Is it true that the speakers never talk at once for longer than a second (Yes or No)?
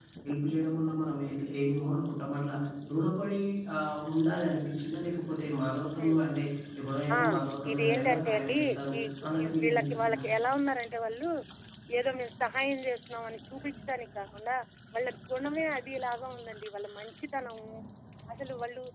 No